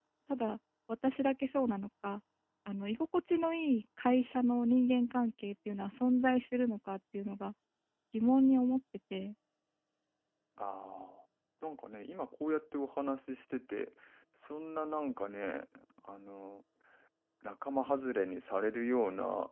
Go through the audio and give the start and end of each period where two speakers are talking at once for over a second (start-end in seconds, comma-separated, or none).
none